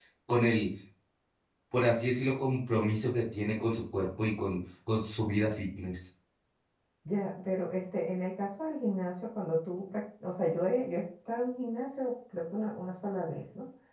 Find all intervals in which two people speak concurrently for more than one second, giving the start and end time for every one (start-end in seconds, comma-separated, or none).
none